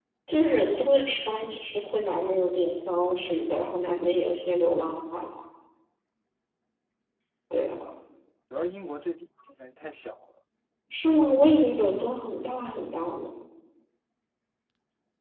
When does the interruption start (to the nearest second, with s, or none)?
none